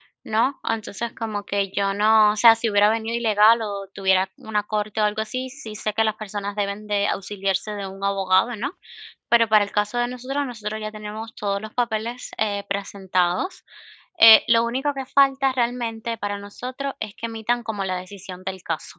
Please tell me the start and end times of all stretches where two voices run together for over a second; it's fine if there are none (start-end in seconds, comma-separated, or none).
none